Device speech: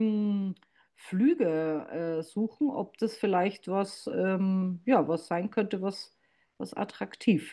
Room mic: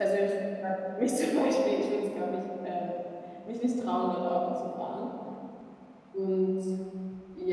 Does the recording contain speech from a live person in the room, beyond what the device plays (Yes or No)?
Yes